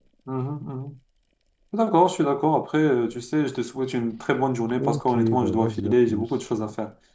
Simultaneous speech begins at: 4.8 s

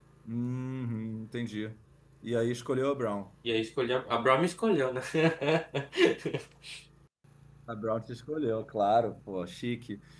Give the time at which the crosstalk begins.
none

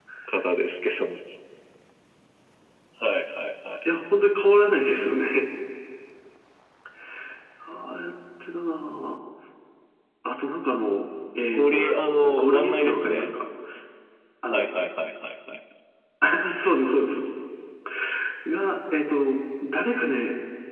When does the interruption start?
11.5 s

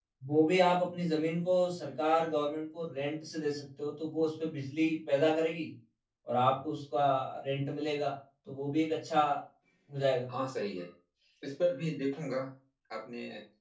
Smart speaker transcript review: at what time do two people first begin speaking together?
none

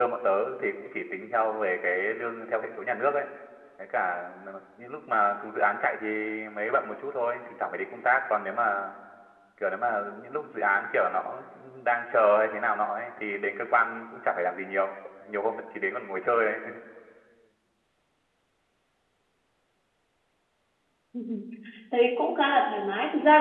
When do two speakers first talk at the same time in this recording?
none

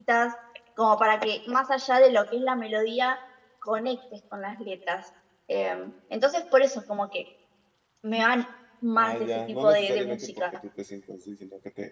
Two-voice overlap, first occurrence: 9.0 s

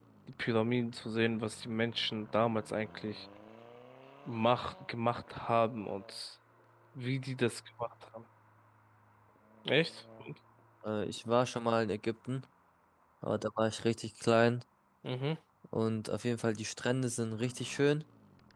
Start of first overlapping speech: none

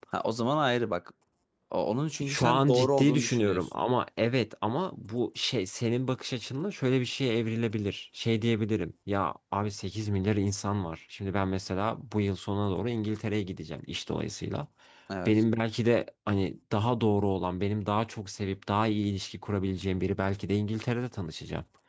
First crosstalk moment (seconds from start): 2.3 s

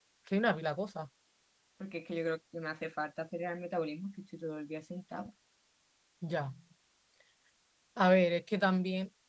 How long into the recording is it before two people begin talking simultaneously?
none

